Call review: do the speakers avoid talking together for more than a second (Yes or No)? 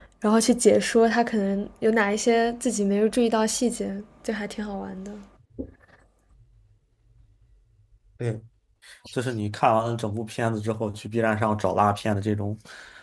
Yes